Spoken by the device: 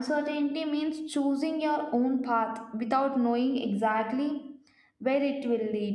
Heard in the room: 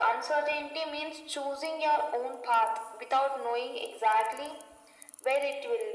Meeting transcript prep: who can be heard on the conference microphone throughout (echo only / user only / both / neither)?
echo only